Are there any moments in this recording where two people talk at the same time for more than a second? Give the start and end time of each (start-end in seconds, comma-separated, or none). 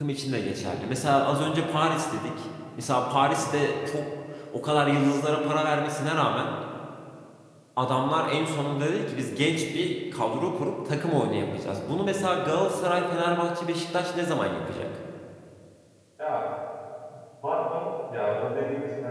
none